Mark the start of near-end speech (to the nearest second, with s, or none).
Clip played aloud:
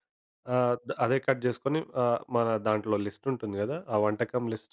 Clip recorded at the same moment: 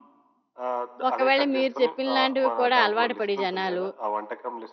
1 s